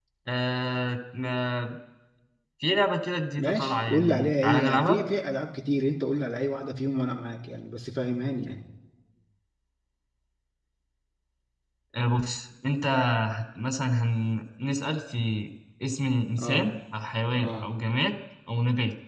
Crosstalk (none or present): present